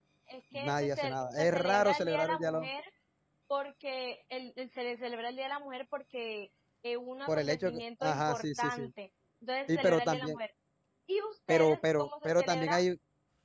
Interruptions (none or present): present